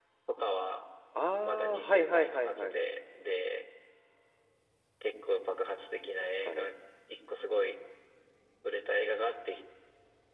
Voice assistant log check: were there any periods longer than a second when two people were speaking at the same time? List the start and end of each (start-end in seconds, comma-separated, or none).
1.4-2.8